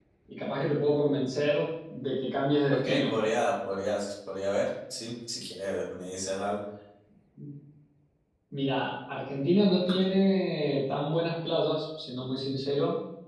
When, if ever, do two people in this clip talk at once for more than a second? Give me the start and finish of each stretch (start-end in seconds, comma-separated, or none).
none